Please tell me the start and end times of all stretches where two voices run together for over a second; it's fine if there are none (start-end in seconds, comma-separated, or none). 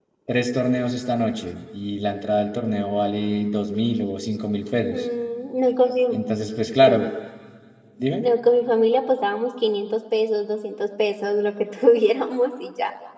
none